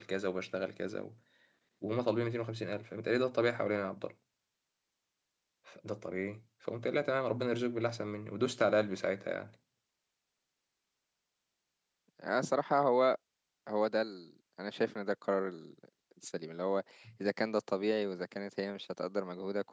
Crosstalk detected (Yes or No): No